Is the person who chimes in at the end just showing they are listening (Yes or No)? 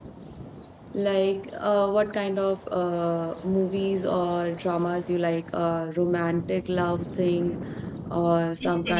No